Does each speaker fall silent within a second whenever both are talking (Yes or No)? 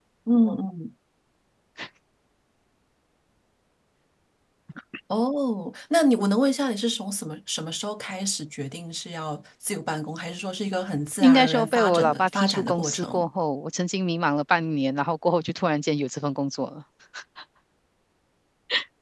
No